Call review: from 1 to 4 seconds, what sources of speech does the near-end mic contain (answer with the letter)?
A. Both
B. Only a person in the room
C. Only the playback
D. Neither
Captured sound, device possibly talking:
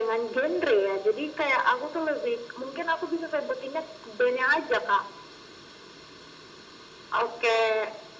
C